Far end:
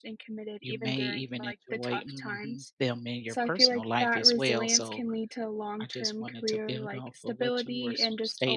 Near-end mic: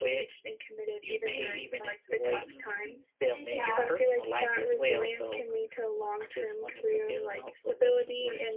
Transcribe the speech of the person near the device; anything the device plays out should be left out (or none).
Yeah,